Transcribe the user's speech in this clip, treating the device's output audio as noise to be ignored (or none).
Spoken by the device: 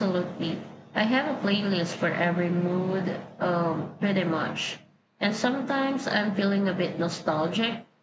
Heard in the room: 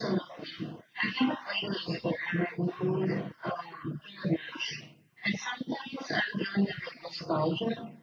none